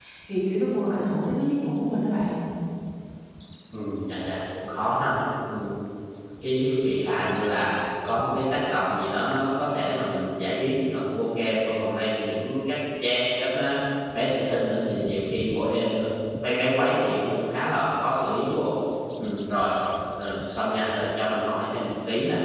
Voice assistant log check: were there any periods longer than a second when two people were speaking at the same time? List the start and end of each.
none

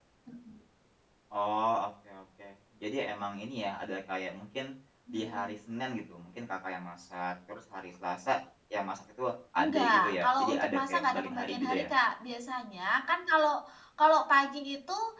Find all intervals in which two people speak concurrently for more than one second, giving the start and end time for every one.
9.6-11.9

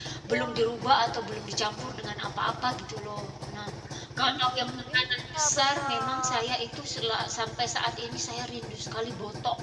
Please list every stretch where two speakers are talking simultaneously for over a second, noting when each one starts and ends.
4.9-6.4

